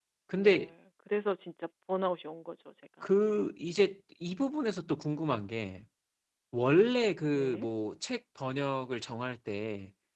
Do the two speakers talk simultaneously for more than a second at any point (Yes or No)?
No